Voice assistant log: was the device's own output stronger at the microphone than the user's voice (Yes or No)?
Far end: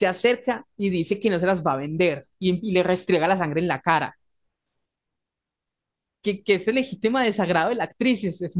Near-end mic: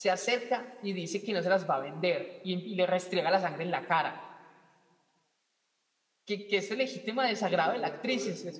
Yes